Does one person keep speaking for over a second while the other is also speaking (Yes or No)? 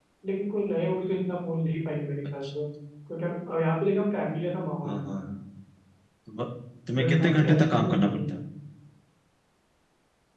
Yes